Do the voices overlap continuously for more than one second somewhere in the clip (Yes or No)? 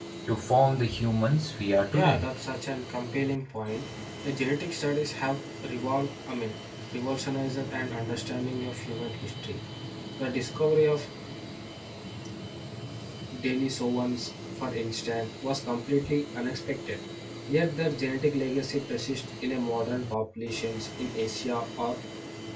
No